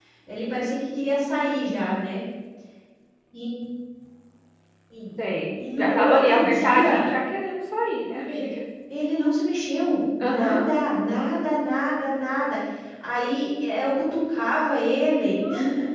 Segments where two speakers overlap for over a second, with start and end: 5.5-7.1

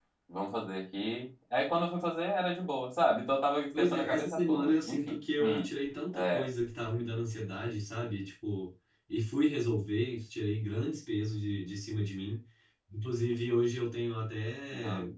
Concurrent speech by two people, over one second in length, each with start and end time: 3.8-5.7

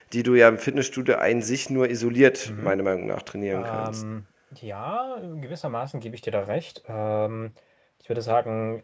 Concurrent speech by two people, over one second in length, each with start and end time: none

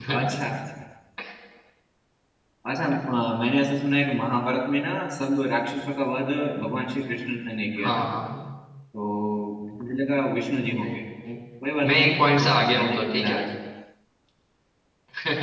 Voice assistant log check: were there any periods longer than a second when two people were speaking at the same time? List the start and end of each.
11.9-13.4

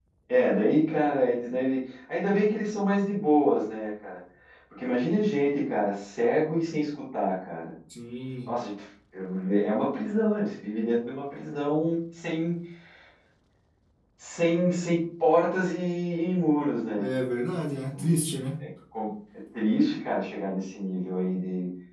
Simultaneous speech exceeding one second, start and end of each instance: none

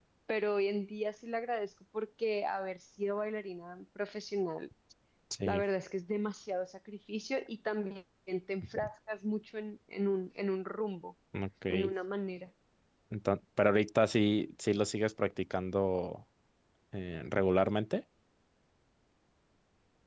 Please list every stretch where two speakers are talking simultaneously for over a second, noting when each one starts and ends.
none

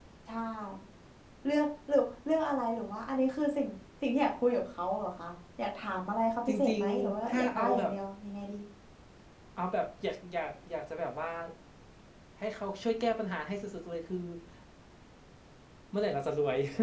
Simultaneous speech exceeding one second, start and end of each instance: 6.5-7.9

